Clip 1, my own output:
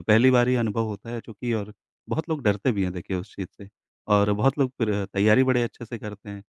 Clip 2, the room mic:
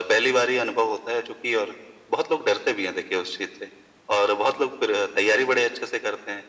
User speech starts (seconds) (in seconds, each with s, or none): none